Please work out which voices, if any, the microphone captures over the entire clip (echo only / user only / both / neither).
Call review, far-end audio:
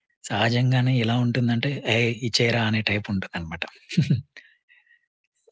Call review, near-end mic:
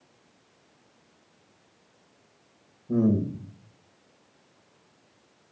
user only